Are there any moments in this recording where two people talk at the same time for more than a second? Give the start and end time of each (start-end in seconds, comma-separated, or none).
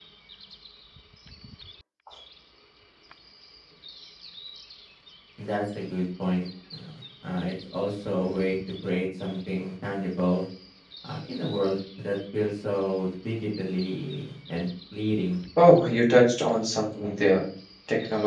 none